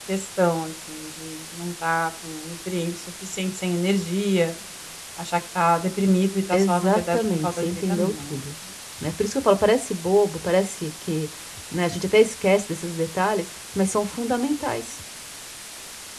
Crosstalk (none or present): present